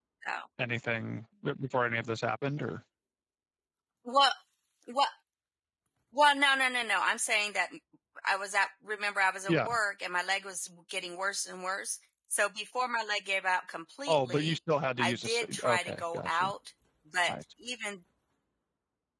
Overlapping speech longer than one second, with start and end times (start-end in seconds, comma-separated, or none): 15.0-16.5